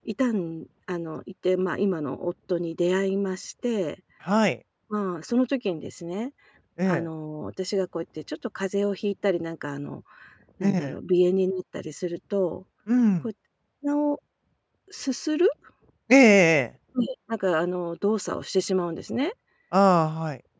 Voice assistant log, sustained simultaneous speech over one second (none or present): none